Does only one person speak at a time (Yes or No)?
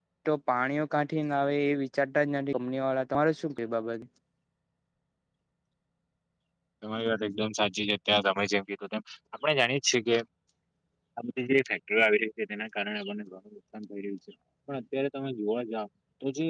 Yes